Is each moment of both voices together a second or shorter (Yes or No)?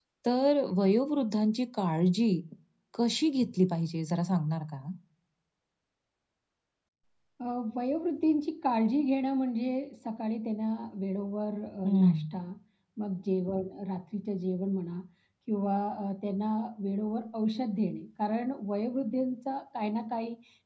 Yes